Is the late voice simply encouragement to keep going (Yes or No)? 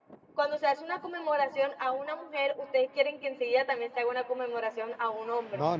No